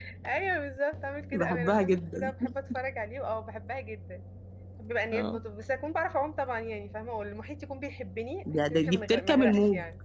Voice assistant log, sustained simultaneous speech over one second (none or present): present